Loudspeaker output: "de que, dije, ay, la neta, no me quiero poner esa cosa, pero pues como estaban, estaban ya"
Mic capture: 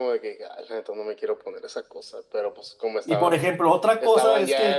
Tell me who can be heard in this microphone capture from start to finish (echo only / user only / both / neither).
both